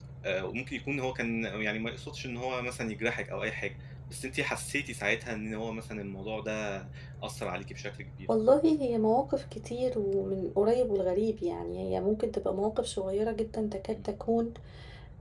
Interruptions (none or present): none